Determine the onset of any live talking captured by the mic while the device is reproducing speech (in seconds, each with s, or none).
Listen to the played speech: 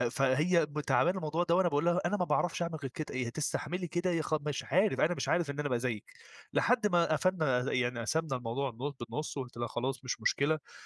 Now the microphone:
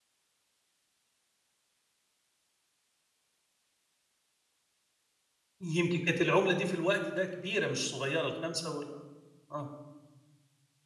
5.6 s